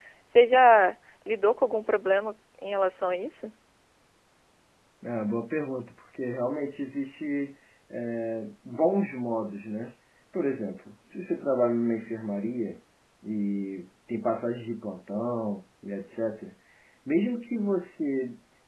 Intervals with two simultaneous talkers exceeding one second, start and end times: none

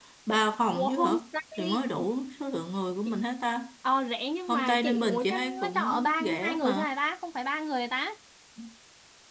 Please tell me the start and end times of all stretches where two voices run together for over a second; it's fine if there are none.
4.5-6.8

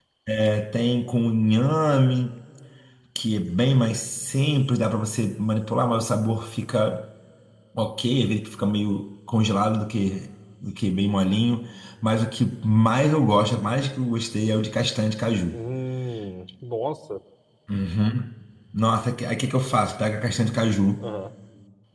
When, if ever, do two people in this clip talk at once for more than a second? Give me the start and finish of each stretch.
none

